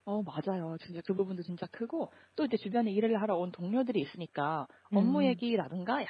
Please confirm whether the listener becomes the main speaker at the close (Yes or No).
No